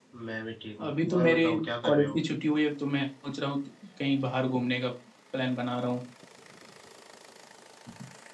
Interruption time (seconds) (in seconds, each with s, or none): 0.9 s